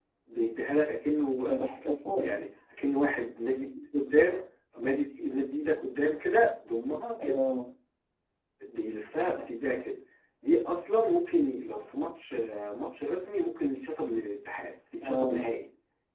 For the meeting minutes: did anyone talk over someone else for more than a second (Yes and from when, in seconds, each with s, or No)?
No